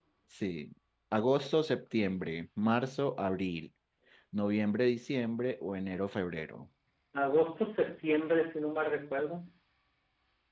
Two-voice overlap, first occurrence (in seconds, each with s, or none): none